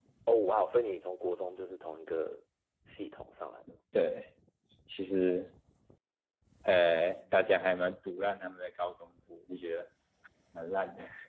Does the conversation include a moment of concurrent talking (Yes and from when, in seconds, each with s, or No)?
No